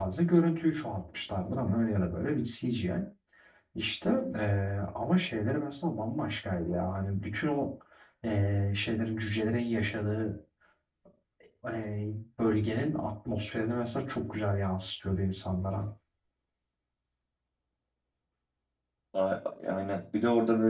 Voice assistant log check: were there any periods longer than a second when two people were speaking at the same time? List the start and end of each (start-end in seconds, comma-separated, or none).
none